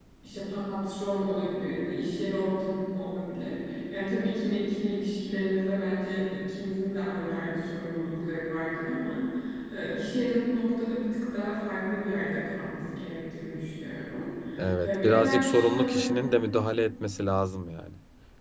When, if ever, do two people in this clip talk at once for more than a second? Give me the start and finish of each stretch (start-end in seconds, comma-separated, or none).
14.8-16.2